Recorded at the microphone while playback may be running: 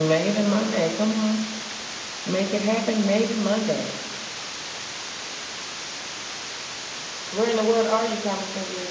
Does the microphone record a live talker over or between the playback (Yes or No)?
No